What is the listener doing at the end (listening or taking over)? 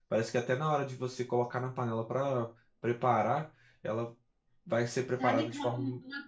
taking over